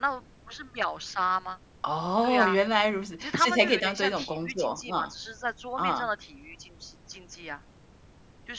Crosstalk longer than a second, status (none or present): present